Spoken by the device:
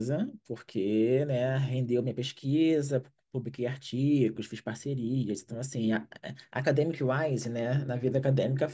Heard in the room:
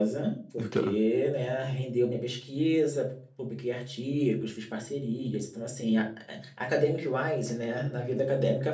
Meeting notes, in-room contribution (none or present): present